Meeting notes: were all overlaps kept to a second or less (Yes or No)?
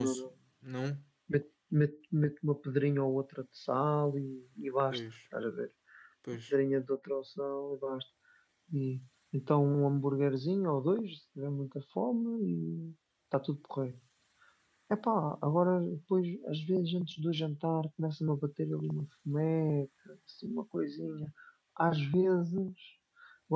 Yes